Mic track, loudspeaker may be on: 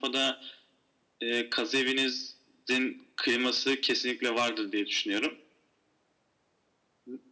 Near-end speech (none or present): none